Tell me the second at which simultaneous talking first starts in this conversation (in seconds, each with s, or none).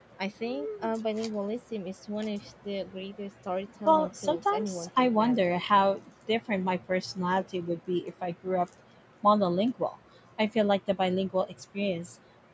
3.9 s